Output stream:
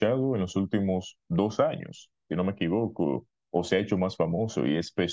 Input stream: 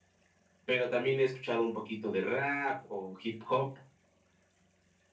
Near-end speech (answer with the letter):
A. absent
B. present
B